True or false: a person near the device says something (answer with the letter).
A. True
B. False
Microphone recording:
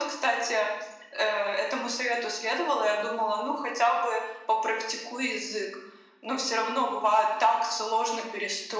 B